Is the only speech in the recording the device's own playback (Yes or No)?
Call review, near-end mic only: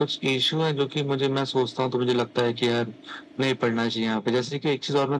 Yes